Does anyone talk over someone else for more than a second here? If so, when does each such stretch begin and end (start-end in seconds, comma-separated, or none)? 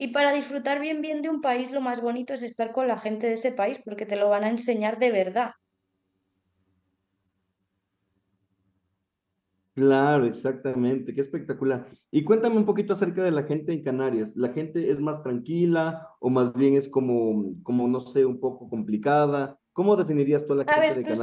none